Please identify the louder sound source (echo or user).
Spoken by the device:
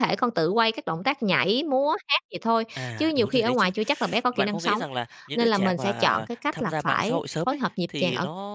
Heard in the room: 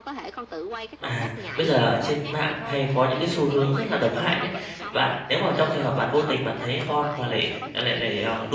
user